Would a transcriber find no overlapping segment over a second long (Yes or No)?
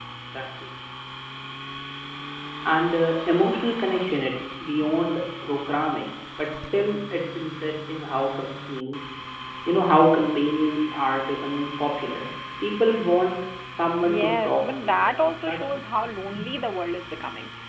No